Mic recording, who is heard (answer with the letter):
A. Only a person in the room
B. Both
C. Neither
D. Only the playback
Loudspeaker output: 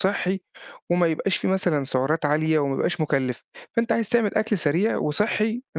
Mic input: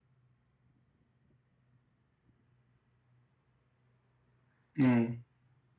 A